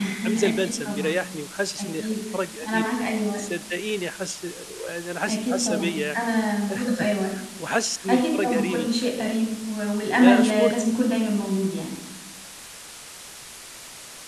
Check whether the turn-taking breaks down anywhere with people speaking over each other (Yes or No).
Yes